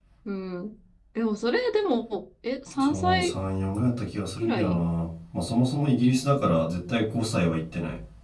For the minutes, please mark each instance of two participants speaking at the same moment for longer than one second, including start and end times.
none

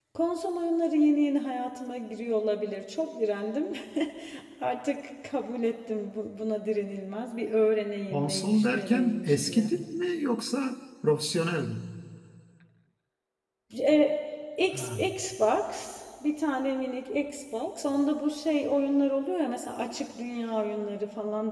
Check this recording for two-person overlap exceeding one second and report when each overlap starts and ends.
8.1-9.7

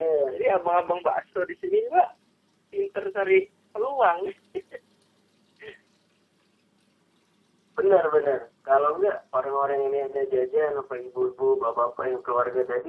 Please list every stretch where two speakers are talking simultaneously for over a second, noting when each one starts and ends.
none

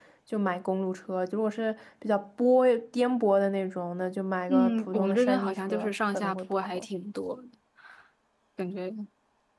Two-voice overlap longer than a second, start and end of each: 4.5-6.9

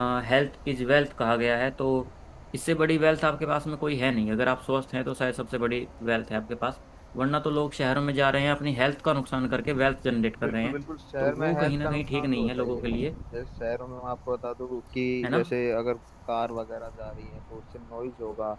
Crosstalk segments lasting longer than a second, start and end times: 11.2-12.8

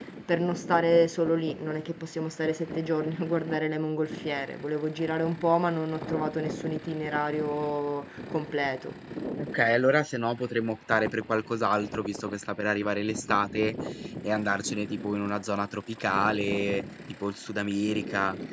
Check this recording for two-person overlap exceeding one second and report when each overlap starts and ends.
none

